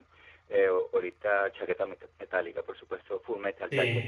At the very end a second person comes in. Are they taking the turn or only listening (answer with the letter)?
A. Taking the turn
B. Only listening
B